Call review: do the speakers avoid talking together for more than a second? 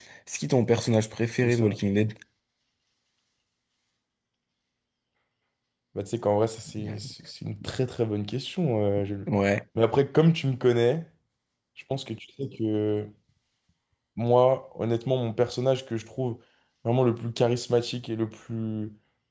Yes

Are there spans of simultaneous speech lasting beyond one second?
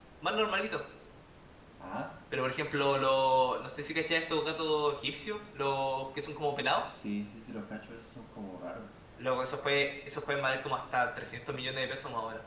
No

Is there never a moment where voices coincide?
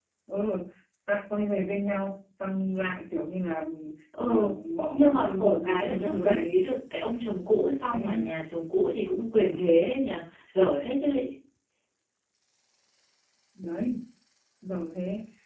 No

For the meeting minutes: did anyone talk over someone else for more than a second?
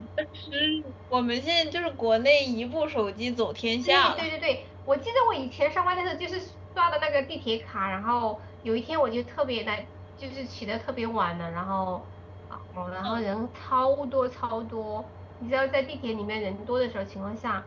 No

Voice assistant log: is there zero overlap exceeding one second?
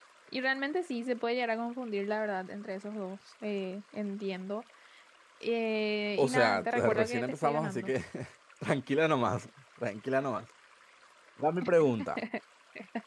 No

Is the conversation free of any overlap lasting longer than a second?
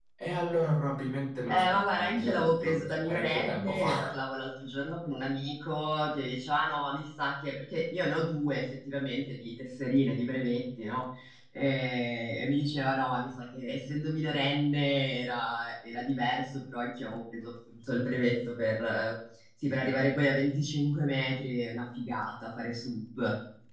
No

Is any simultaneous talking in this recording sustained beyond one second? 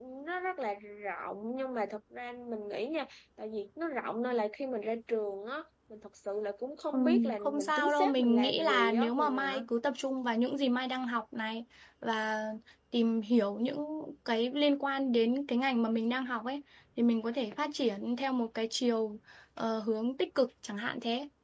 Yes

